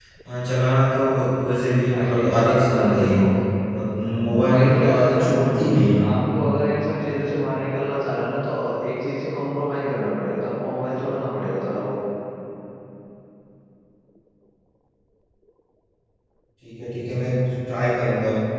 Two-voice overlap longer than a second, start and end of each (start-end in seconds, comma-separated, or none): 1.9-3.2, 4.3-6.0